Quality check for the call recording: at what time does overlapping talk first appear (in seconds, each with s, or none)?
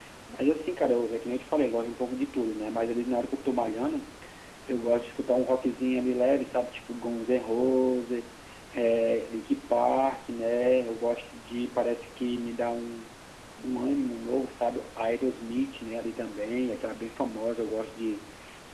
none